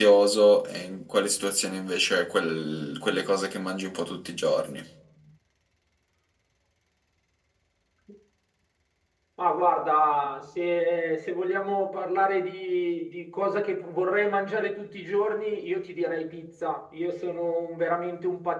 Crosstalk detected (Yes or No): No